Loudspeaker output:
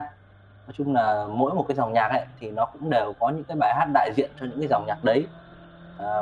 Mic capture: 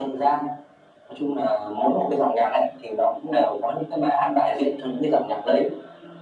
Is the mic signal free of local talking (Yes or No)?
Yes